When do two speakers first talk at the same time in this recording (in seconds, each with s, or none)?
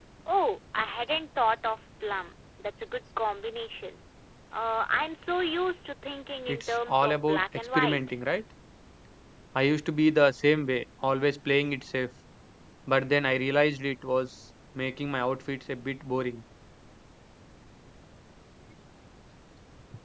6.5 s